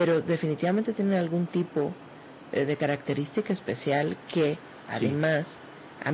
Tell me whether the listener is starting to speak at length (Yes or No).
No